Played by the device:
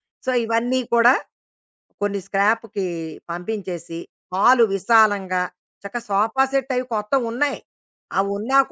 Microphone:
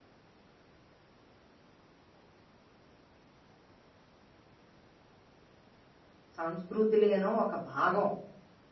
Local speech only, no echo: సంస్కృతిలోనో ఒక భాగం.

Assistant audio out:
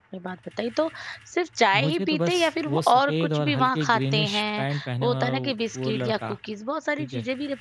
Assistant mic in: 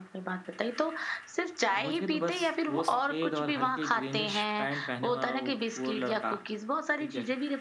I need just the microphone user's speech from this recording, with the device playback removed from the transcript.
none

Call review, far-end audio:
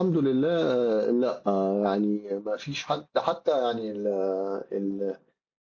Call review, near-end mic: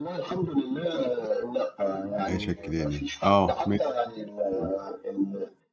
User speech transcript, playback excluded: عيش الكيلاني، آه ماشي، إمم،

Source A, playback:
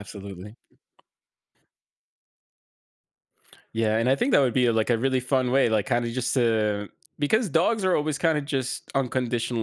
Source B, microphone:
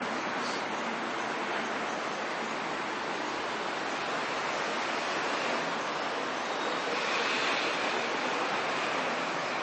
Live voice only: none

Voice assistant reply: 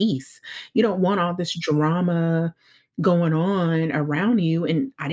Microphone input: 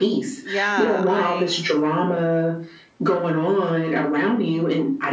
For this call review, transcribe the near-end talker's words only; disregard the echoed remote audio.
Yeah, I

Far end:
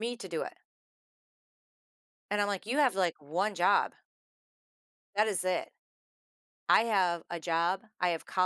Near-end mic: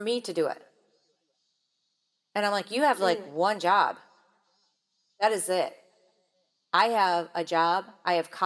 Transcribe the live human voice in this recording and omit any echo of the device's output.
Mm.

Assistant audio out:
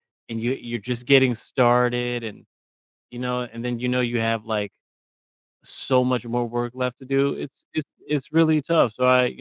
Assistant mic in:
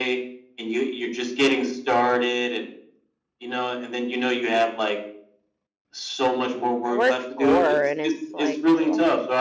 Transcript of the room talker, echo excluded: I work 4 and it's like, oh

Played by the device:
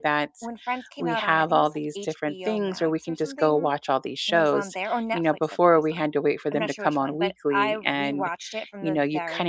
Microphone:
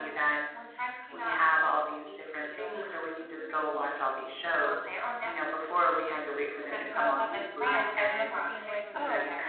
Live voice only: when I was watching Friends, I remember being like, "Oh"

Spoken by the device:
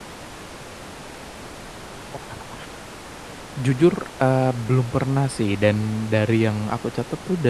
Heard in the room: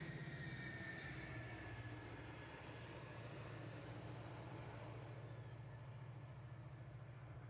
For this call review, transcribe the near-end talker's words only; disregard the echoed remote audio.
none

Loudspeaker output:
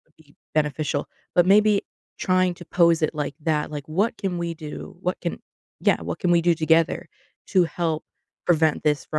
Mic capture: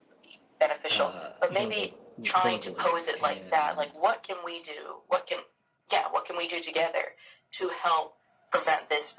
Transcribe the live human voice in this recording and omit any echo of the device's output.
uh verbal w- verbally and

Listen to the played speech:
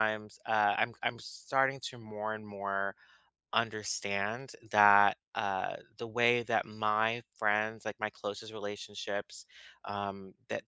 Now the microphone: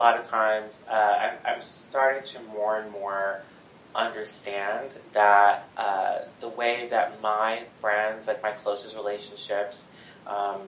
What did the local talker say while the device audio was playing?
none

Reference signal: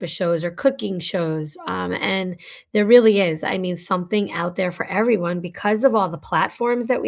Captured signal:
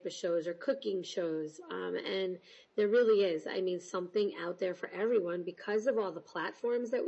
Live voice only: none

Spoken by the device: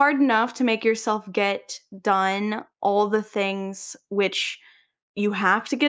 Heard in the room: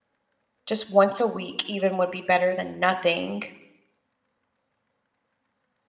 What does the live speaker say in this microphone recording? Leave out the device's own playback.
just once a week even would be better than nothing

